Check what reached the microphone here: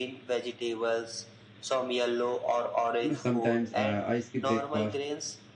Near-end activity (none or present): present